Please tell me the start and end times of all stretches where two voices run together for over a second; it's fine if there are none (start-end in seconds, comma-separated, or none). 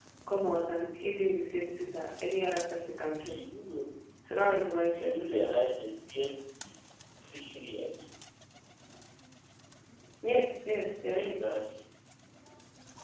none